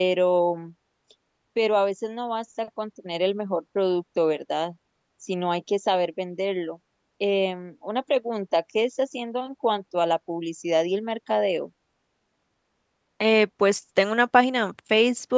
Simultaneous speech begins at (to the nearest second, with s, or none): none